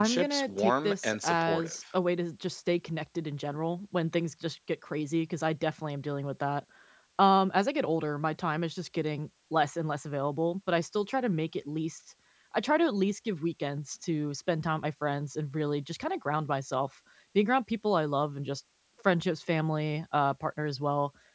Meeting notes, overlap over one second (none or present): present